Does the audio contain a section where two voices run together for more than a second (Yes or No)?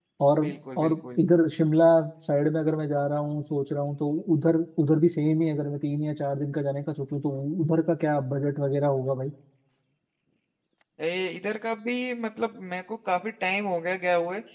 No